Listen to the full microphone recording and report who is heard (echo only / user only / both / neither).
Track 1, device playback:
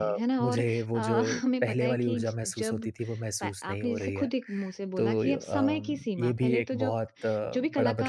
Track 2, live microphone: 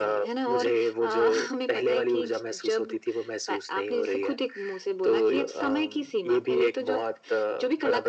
echo only